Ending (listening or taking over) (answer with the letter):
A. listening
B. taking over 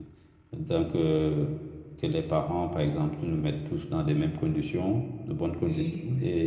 A